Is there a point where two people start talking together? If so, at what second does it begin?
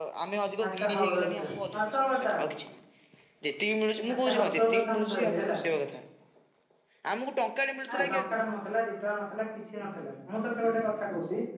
0.6 s

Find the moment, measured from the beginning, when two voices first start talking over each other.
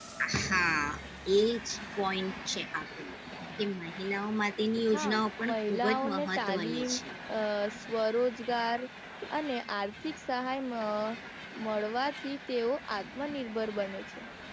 4.9 s

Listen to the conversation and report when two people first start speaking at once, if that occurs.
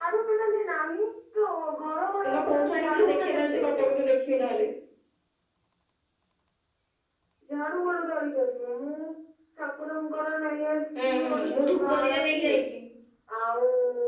2.3 s

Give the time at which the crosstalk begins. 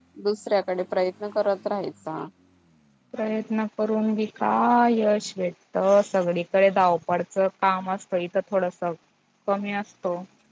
none

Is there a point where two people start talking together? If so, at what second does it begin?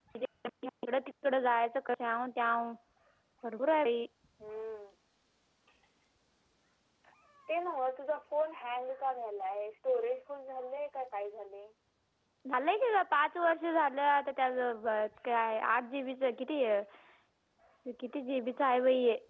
none

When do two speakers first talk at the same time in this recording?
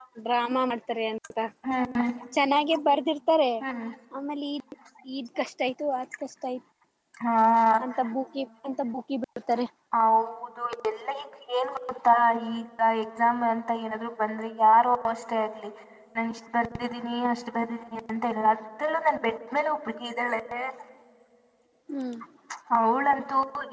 none

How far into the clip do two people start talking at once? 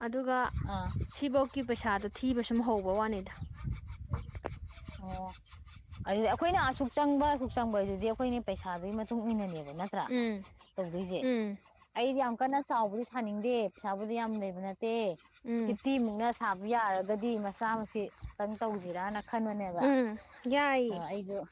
none

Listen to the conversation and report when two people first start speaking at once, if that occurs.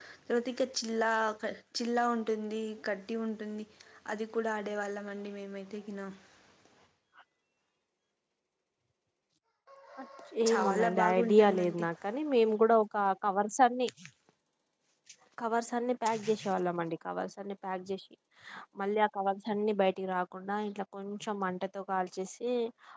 10.5 s

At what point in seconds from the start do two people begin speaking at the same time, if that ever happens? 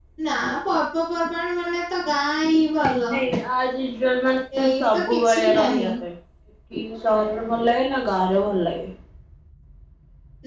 4.5 s

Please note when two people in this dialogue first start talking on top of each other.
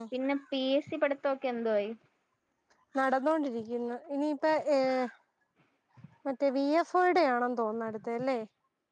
none

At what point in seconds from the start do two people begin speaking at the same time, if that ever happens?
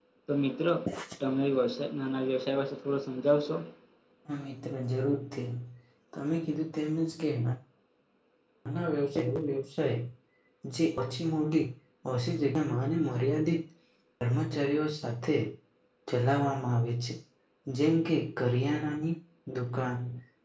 none

